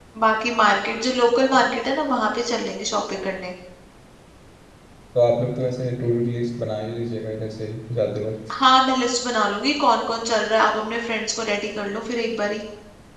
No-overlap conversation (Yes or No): Yes